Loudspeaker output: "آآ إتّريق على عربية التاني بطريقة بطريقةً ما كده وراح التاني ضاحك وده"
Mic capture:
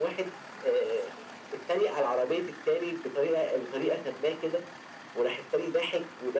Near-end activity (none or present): none